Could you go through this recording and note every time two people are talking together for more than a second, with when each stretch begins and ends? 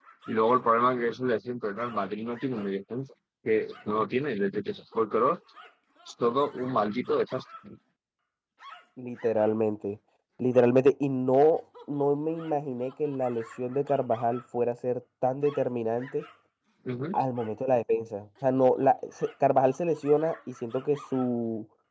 none

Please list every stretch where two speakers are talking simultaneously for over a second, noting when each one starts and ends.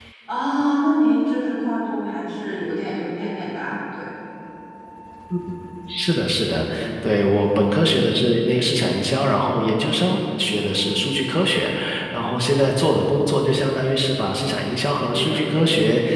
none

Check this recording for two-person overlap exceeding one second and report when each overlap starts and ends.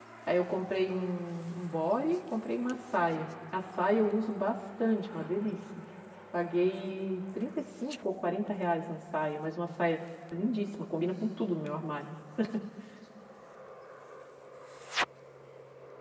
none

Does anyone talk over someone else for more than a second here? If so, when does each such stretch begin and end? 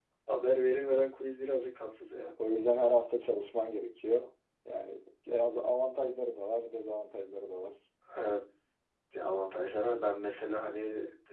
none

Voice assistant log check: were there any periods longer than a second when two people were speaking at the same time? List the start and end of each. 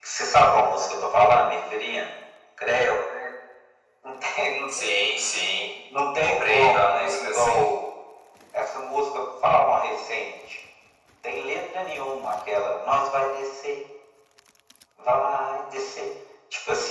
6.2-7.7

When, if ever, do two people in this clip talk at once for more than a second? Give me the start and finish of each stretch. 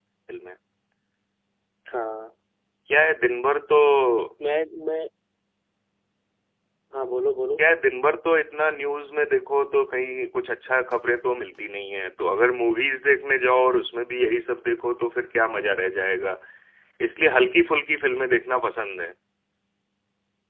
none

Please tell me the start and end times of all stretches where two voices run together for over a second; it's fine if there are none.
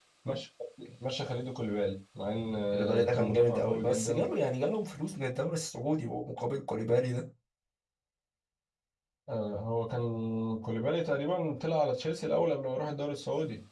2.7-4.2

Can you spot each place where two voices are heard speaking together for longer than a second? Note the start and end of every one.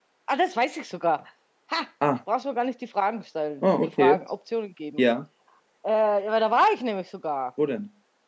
none

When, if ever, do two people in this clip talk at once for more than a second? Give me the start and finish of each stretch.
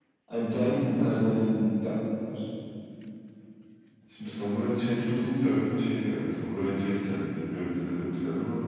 none

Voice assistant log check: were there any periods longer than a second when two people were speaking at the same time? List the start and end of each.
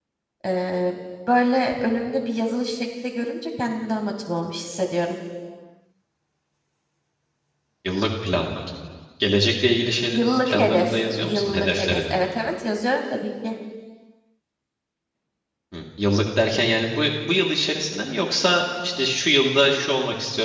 10.1-12.2

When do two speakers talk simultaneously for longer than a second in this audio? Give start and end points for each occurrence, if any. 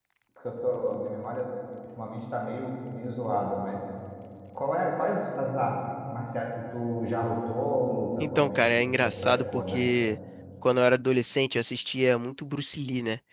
8.2-9.8

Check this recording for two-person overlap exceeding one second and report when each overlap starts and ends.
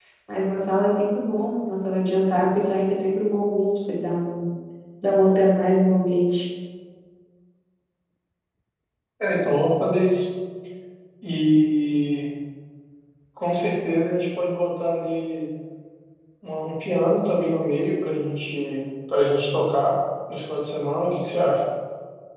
none

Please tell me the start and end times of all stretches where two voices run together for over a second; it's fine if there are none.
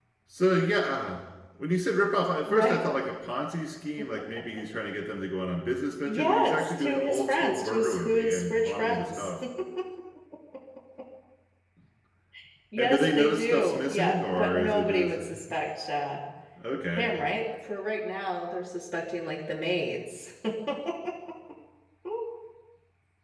6.0-9.3, 12.8-15.2

